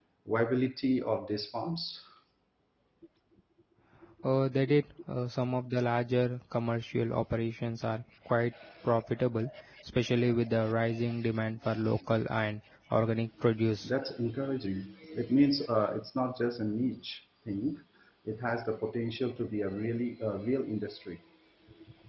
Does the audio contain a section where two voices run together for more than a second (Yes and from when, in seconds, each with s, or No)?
No